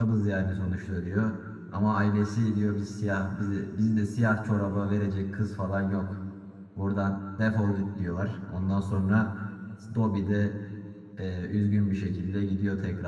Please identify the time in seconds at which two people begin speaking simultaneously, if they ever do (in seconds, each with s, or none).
none